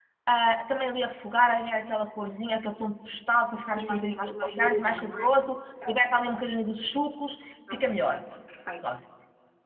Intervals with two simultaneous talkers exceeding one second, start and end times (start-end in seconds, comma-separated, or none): 3.5-5.3